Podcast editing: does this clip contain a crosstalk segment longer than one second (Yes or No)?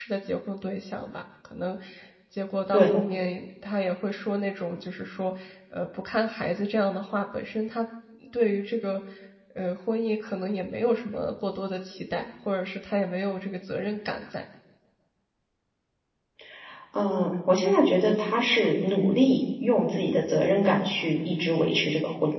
No